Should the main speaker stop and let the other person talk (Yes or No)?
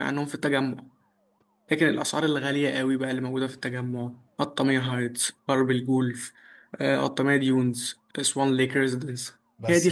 Yes